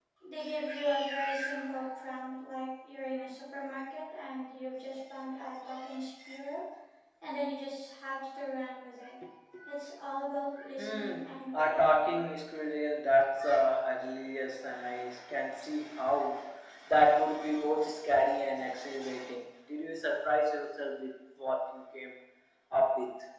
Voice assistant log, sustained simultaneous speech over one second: present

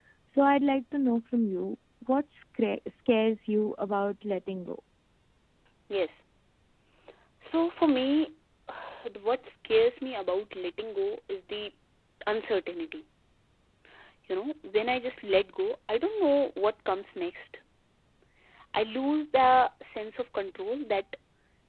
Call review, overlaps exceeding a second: none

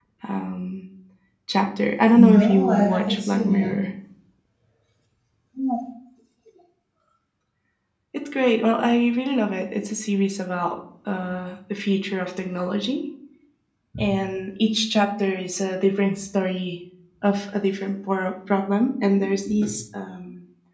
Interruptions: present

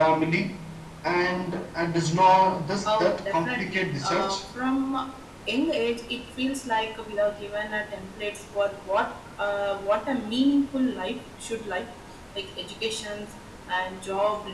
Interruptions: present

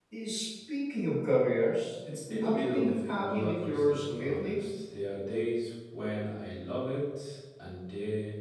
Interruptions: present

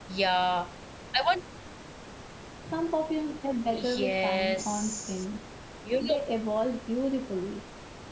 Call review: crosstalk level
present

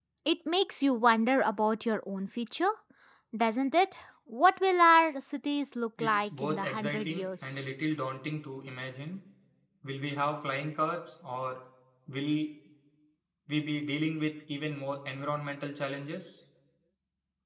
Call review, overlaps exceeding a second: present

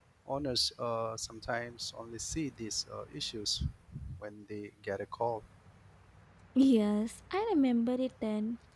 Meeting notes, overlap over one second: none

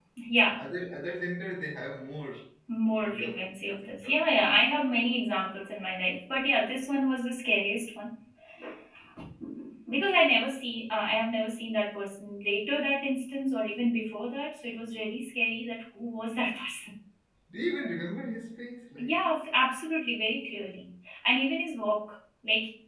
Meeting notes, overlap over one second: present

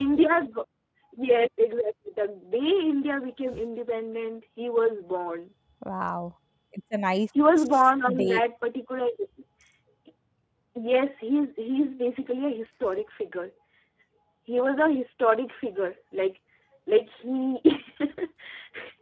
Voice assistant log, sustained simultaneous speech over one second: none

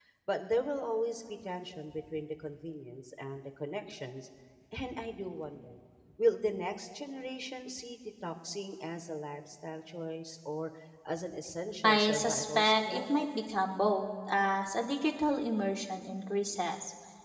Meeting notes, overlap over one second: present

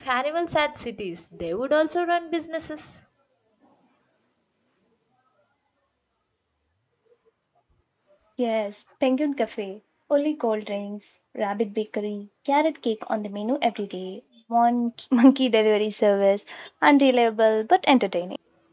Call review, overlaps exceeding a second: none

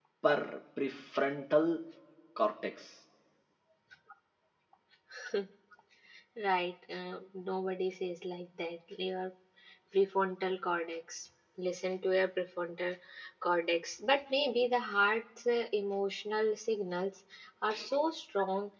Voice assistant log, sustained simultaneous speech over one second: none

